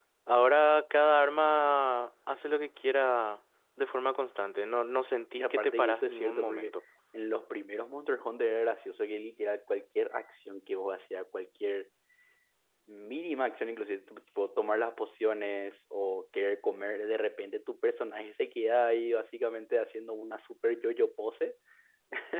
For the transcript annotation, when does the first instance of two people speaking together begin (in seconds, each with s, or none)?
5.4 s